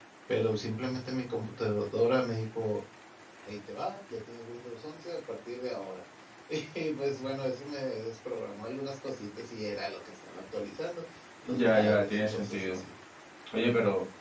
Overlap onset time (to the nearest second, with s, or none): 11 s